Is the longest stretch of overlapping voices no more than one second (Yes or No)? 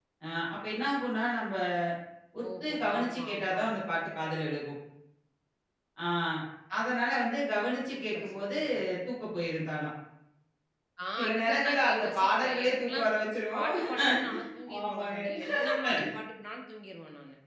No